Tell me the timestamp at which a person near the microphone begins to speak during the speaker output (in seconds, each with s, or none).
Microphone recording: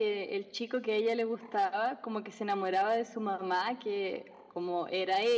none